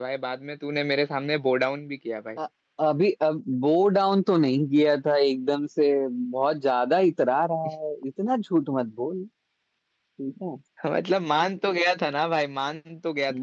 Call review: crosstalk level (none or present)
none